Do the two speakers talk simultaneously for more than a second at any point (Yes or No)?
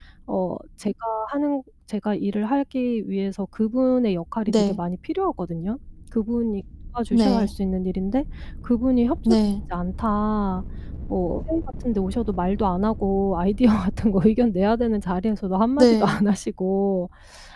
No